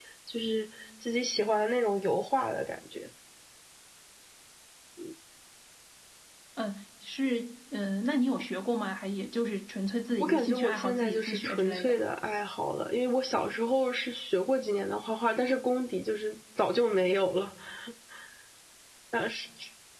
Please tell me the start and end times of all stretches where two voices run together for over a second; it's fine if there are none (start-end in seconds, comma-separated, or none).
10.2-12.0